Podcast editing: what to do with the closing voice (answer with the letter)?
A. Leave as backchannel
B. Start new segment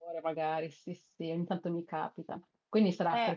A